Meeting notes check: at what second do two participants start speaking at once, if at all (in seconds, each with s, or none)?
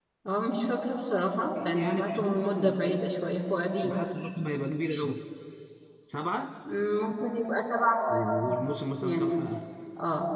1.8 s